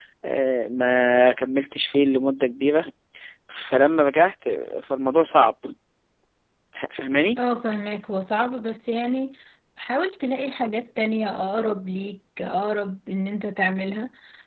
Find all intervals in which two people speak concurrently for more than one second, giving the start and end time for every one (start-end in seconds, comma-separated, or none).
none